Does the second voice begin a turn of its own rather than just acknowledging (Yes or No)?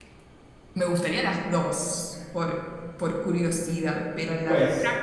Yes